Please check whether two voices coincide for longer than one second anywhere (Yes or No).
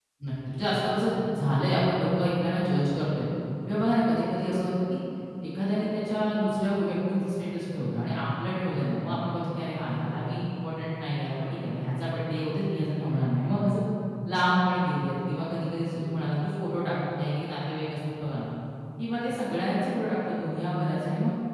No